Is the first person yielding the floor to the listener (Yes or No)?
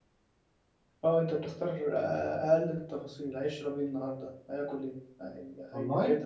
No